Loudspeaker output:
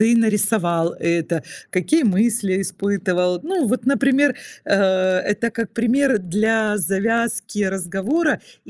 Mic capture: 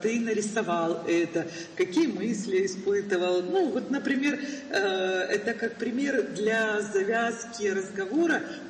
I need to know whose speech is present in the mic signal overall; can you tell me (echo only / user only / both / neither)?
echo only